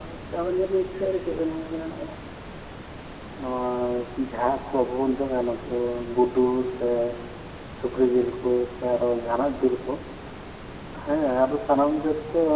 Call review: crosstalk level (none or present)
none